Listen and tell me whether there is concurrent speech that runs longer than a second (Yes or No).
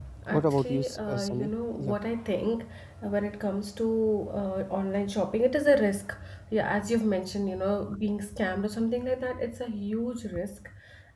Yes